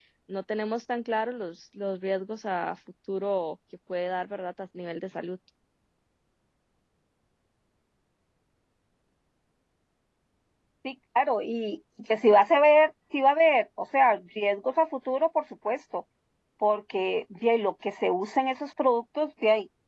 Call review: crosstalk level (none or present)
none